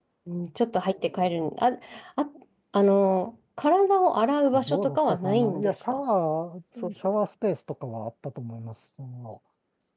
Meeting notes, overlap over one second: present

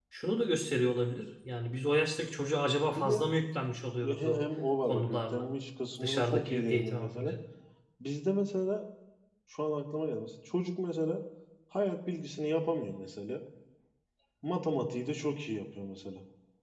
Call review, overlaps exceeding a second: present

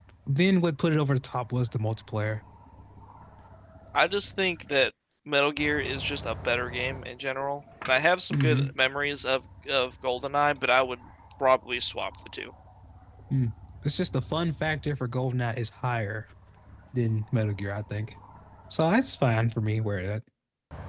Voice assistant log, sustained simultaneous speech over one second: none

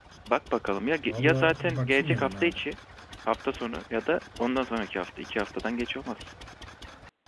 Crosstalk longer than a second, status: present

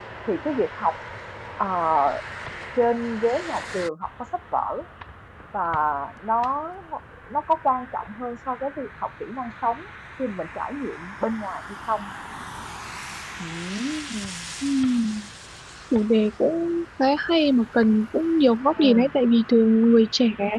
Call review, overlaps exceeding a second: none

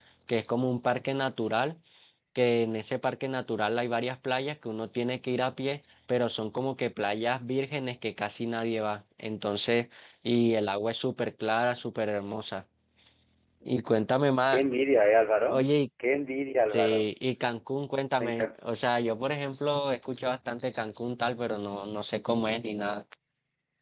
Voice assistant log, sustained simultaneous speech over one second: none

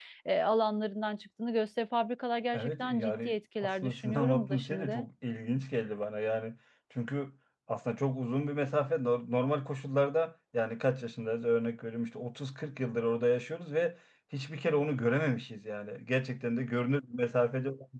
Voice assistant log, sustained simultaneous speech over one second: present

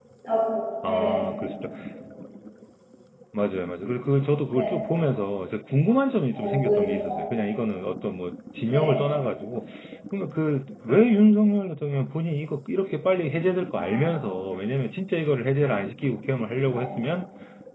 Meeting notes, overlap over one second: present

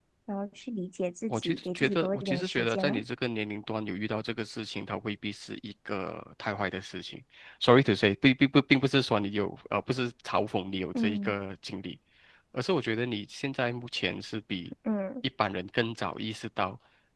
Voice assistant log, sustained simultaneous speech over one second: present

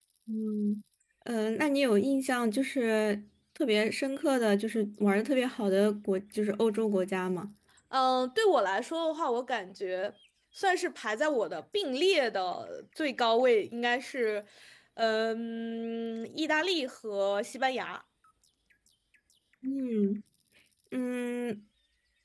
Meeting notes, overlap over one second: none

